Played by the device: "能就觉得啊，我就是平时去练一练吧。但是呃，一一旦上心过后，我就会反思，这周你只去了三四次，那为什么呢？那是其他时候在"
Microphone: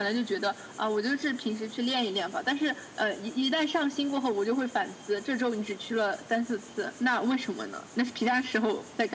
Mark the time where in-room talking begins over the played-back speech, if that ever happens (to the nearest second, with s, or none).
none